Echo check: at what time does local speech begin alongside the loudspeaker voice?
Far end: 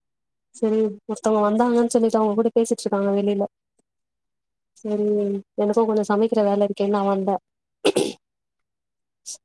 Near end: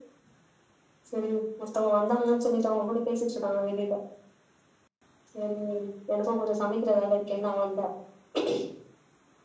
none

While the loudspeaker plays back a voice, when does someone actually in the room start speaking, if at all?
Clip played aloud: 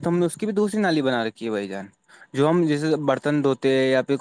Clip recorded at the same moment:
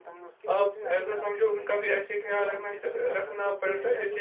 1 s

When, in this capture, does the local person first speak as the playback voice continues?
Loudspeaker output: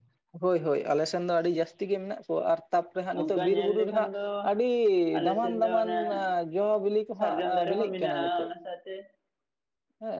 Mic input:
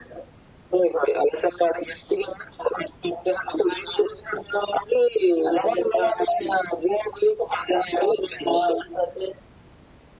none

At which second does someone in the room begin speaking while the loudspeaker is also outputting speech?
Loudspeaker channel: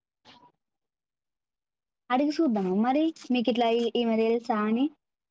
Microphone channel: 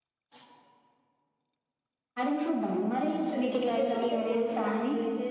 3 s

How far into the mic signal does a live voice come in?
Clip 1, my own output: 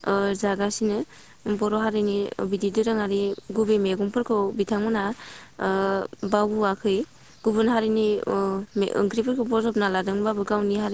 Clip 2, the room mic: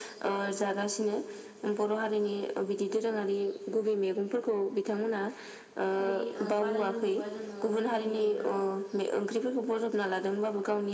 6 s

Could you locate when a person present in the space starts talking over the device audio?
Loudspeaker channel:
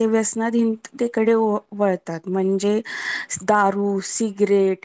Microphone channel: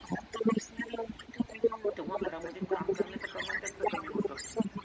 2 s

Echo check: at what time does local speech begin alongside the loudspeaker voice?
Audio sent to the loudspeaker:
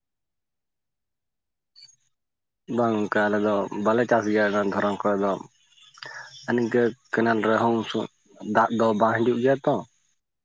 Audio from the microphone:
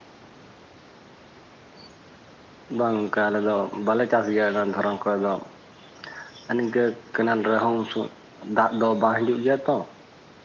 none

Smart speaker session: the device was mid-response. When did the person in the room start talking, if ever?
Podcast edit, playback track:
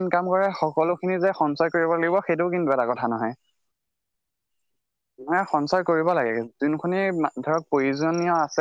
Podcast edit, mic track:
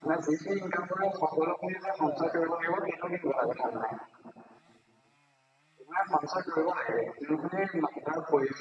2 s

